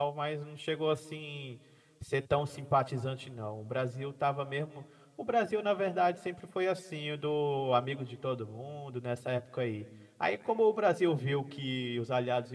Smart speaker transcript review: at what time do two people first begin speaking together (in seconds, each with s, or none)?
none